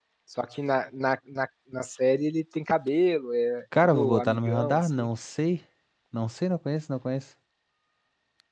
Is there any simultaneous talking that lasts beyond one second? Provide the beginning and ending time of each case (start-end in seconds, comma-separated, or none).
3.8-5.1